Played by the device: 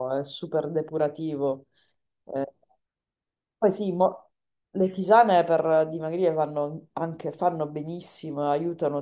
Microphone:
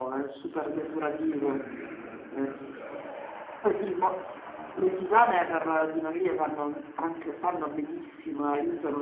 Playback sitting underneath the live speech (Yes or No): No